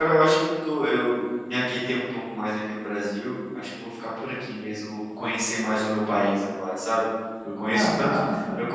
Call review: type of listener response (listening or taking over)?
listening